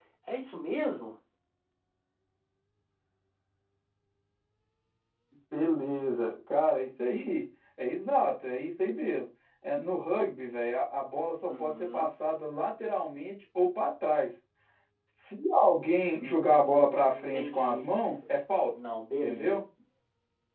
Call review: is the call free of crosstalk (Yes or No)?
No